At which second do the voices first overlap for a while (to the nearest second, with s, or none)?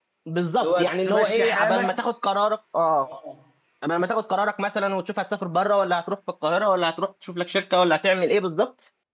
1 s